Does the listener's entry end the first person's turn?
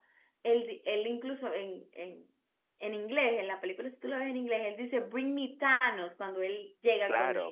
Yes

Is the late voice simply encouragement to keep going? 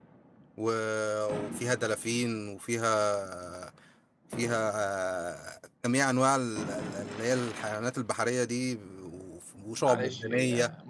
No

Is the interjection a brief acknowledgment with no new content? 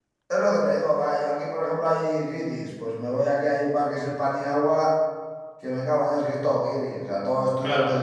Yes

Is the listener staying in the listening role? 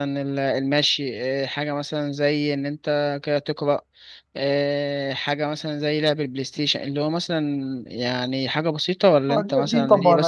No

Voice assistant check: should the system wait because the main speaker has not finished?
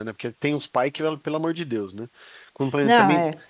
Yes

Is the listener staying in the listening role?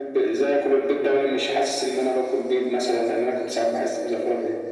No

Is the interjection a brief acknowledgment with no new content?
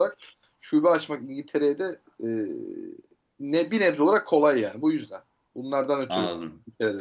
No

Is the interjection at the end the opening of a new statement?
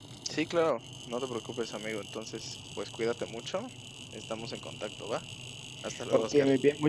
Yes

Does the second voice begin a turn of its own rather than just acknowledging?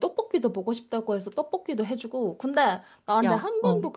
No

